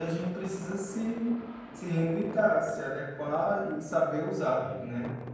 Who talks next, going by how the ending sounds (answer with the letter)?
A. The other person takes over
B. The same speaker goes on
B